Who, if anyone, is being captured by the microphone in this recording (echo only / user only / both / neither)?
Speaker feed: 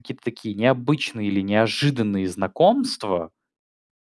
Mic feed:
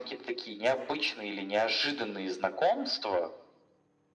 echo only